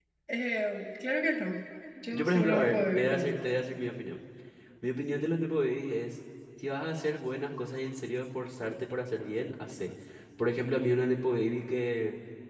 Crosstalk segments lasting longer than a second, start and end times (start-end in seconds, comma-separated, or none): 2.1-3.4